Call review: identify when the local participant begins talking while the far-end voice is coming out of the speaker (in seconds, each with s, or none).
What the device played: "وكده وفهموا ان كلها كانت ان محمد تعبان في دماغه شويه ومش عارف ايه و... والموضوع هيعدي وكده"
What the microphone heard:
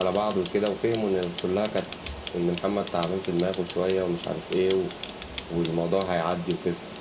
none